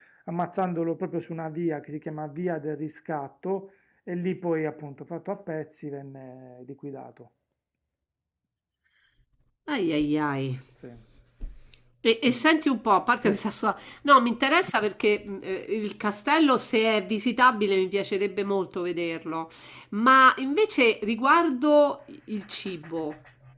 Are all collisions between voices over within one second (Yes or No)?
Yes